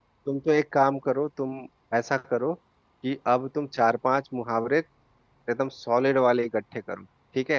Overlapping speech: No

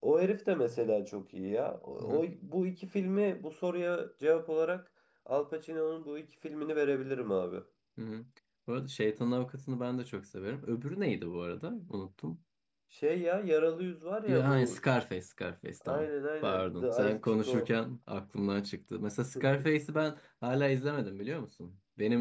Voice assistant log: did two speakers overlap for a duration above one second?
Yes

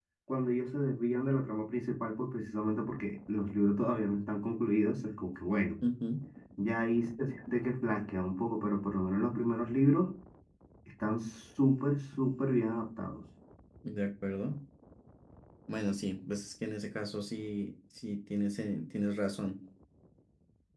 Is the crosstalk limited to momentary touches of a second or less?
Yes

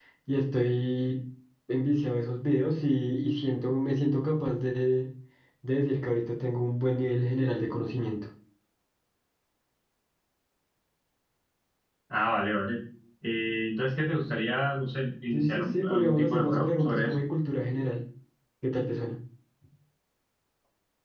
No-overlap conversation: No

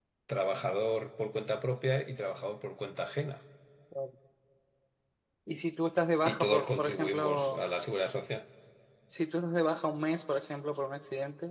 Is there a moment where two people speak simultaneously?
Yes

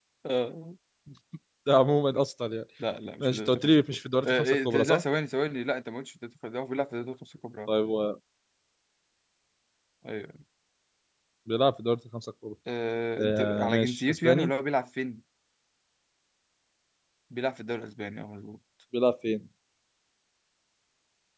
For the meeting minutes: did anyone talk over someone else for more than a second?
Yes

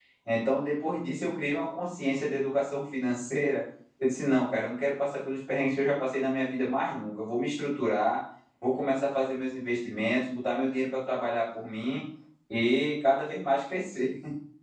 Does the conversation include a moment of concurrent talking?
No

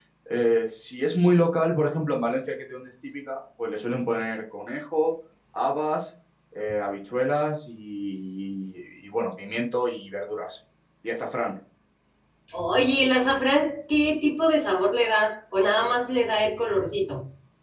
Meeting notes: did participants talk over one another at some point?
No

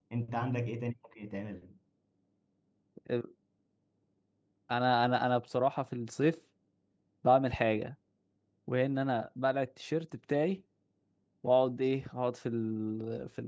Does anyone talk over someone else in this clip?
No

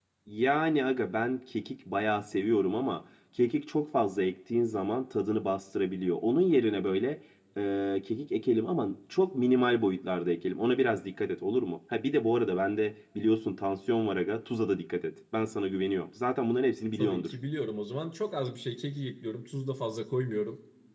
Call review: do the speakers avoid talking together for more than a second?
Yes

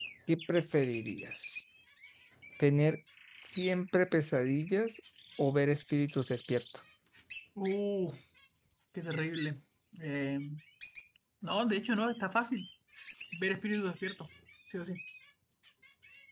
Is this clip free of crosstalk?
Yes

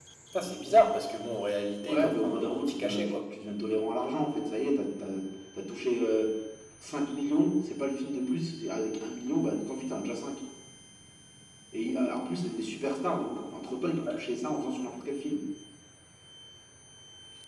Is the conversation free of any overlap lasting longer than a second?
No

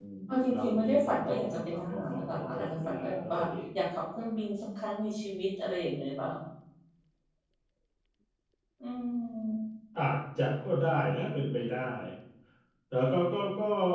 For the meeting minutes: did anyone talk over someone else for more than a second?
Yes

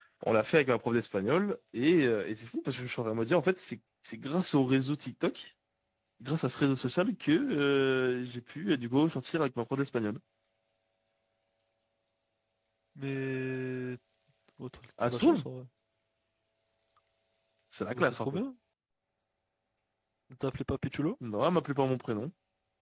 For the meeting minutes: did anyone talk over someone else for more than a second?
No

